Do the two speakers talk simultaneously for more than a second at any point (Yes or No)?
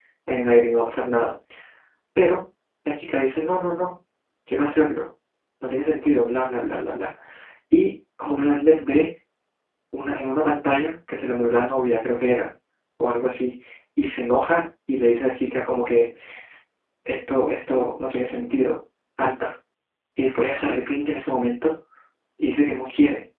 No